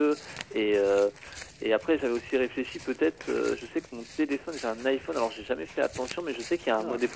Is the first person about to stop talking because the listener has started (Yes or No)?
No